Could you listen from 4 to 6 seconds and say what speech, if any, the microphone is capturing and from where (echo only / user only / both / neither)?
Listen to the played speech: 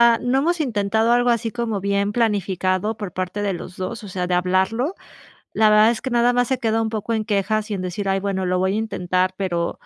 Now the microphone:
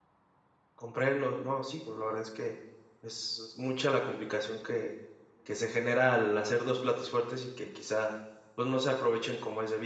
user only